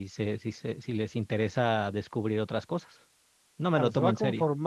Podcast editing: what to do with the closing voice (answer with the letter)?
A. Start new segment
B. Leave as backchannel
A